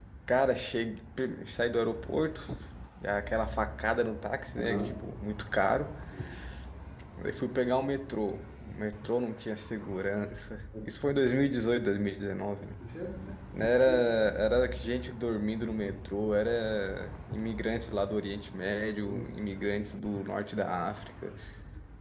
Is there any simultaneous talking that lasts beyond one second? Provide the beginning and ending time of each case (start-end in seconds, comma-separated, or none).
none